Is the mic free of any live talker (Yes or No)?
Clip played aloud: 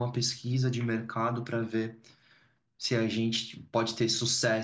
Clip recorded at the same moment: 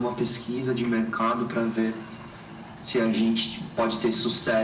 Yes